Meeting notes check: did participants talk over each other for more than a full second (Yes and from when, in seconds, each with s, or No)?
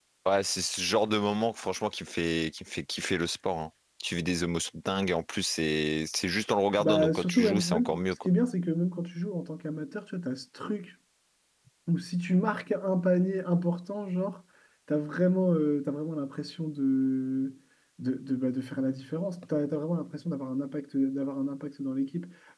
Yes, from 6.8 s